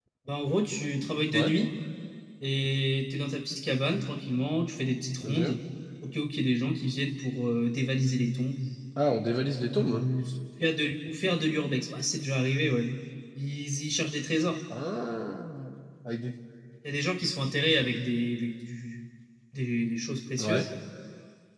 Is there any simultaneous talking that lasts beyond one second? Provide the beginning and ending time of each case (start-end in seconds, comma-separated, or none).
none